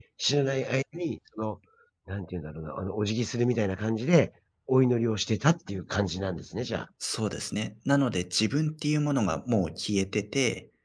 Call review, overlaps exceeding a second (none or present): none